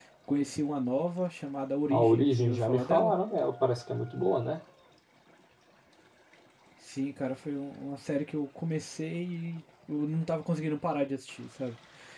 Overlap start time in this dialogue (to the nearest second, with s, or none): 2 s